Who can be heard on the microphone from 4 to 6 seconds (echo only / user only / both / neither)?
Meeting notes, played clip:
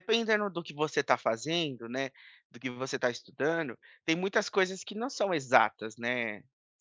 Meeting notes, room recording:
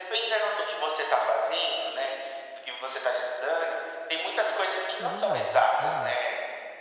both